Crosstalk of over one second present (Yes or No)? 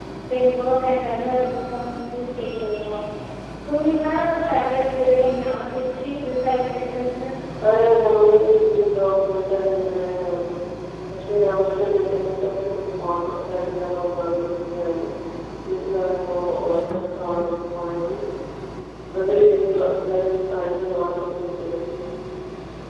No